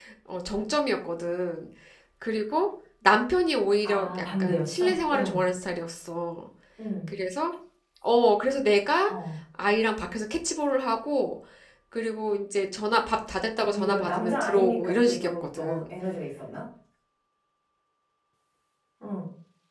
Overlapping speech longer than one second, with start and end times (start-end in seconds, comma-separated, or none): 3.8-5.4, 13.6-15.8